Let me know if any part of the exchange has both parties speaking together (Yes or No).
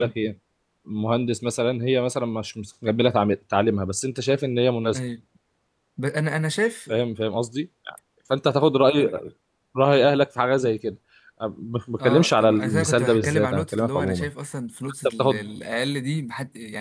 Yes